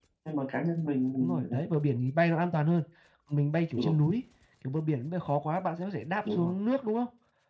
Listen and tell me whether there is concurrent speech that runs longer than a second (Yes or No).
No